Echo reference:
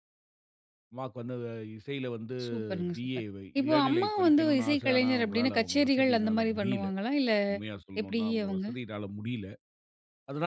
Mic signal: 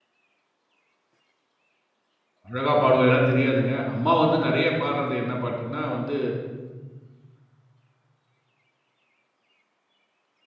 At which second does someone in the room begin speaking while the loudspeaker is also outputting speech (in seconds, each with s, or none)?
2.5 s